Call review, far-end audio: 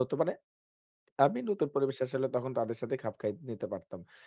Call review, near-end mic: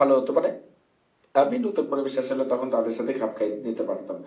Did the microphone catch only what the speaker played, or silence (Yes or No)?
Yes